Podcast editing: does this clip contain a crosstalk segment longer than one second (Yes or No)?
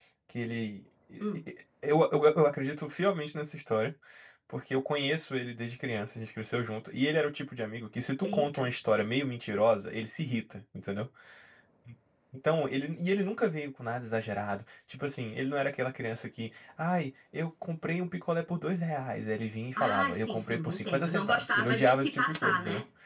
Yes